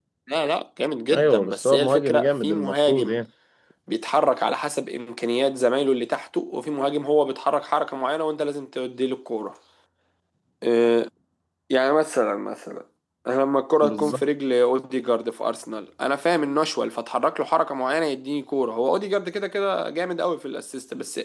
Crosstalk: present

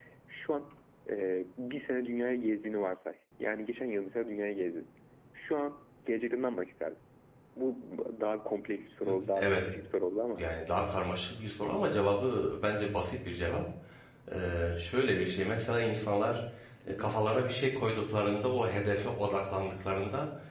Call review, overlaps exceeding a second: none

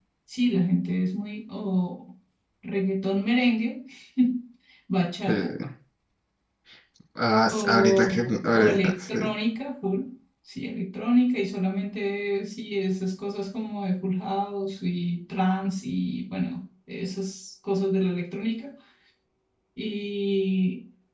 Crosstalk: present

